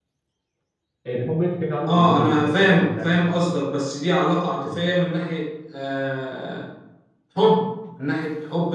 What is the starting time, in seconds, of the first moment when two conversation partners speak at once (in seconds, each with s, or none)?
1.9 s